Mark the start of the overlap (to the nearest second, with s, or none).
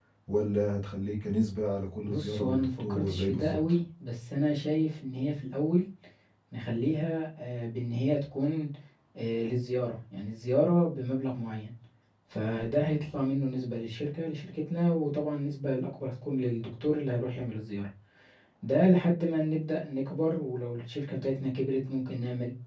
2 s